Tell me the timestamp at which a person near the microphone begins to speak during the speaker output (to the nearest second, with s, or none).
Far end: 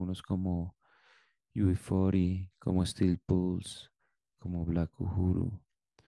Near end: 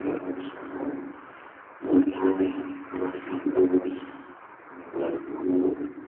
none